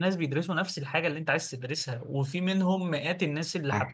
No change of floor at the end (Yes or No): Yes